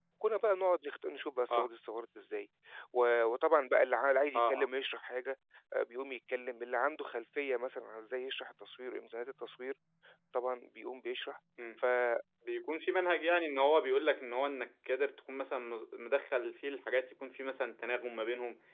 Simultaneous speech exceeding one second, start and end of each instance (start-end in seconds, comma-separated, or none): none